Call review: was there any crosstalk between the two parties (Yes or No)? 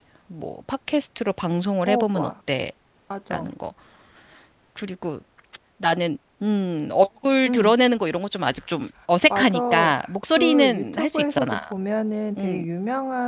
Yes